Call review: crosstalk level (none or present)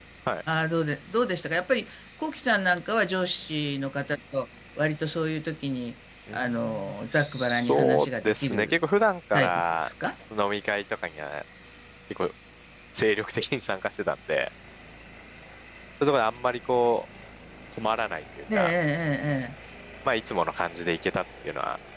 present